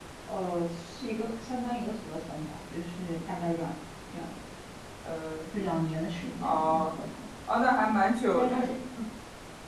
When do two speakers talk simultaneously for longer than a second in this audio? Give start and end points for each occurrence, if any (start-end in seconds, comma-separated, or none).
none